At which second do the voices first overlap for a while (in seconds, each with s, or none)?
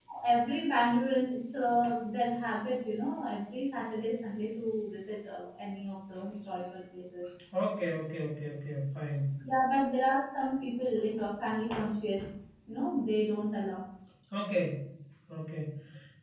none